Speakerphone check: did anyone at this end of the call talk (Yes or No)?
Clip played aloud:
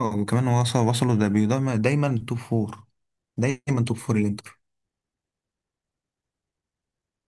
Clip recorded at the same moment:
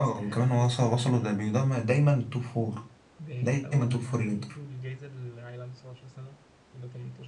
Yes